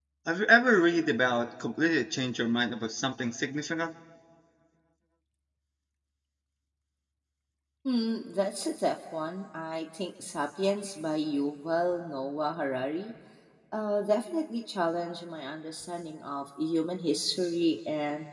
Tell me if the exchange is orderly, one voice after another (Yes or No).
Yes